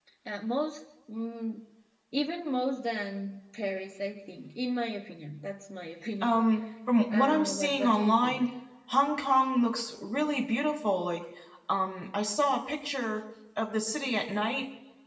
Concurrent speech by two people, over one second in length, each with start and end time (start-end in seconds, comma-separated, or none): 7.1-8.5